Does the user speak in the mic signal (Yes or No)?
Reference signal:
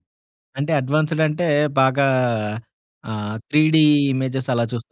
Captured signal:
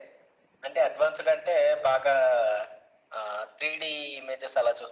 No